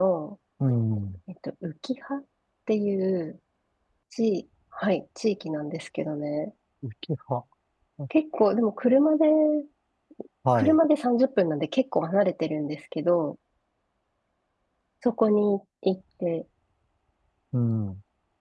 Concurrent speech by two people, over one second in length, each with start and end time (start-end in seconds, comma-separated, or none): none